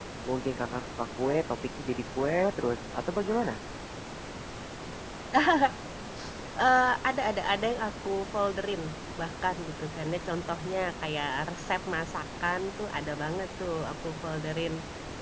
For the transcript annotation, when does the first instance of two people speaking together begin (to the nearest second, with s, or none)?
none